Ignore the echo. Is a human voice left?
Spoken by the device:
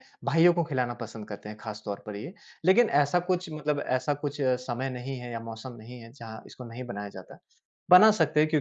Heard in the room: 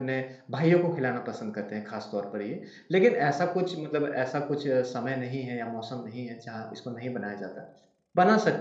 No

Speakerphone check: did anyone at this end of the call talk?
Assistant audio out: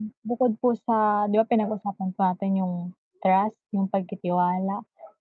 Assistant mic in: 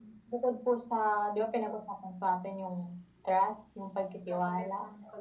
Yes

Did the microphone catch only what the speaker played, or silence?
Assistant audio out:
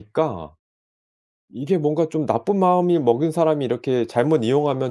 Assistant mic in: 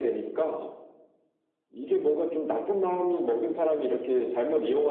Yes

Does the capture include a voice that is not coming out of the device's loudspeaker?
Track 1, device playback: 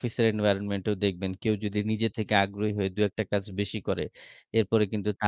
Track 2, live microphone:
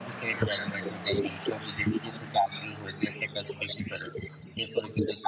No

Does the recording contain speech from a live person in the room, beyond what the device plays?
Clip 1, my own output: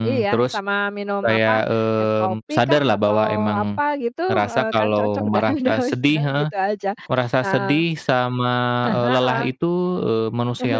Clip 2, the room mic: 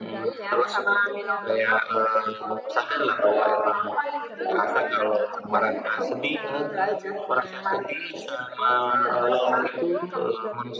Yes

